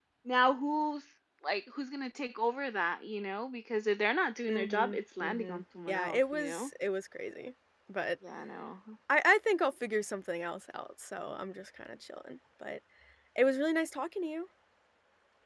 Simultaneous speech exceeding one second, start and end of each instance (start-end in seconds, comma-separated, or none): 4.5-6.7